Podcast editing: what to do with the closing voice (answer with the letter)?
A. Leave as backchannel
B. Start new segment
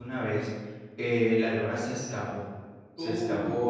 A